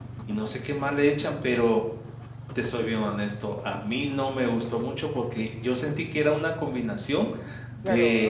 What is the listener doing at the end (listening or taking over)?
taking over